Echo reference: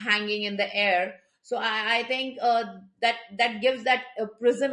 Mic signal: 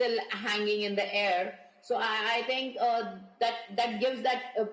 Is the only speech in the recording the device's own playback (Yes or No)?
Yes